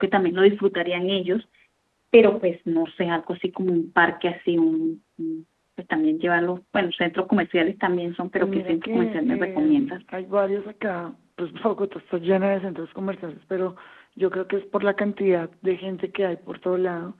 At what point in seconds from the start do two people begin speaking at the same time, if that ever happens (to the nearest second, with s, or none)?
8 s